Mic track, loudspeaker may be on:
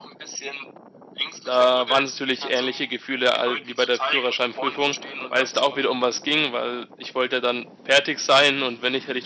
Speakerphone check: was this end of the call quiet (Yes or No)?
No